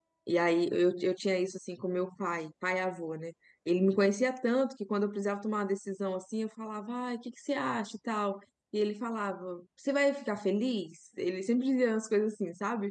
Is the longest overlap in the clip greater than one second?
No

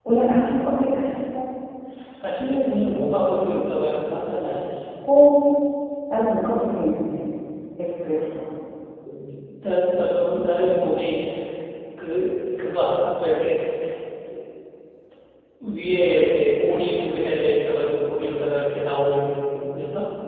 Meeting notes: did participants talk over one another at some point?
No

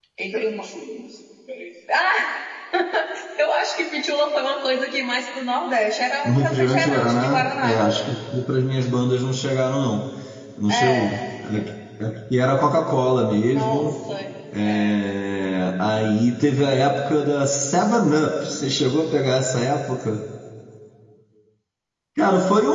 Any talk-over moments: Yes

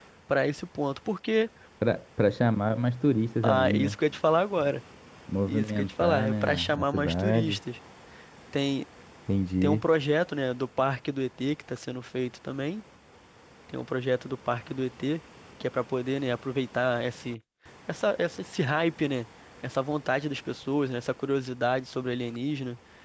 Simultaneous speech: Yes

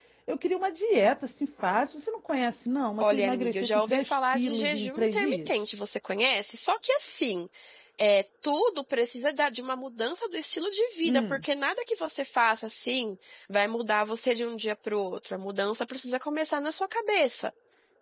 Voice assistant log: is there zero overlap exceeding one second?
No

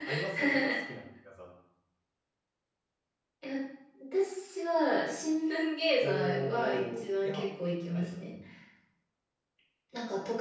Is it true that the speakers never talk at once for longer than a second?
No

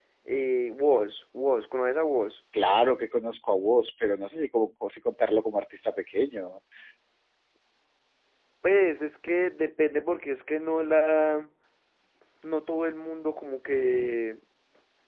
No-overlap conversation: Yes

